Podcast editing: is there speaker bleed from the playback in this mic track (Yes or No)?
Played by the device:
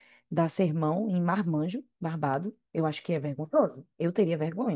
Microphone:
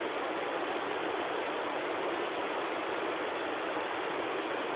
No